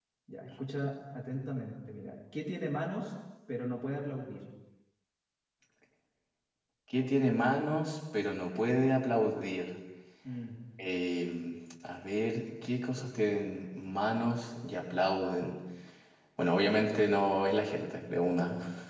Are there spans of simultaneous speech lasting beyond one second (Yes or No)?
No